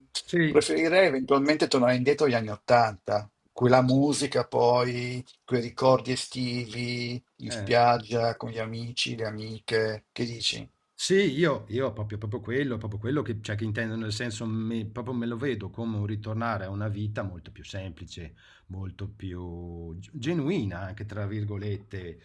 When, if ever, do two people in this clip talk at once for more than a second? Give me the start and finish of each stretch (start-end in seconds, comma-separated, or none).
none